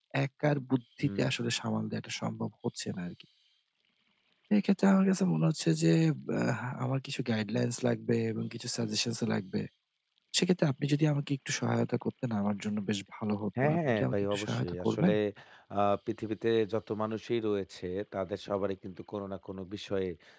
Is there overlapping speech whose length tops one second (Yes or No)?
Yes